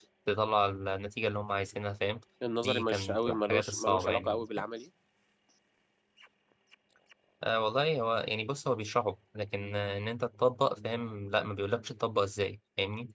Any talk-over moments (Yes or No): Yes